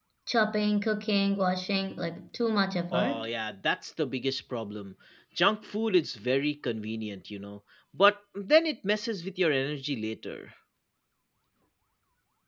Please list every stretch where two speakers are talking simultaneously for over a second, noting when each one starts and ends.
none

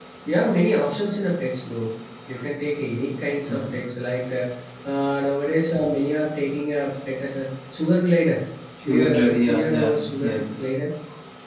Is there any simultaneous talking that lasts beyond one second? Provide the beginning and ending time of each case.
8.8-10.5

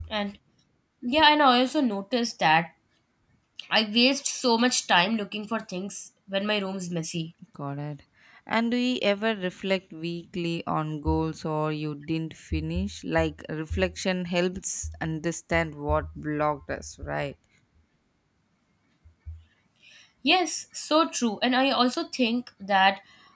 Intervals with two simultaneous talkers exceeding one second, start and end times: none

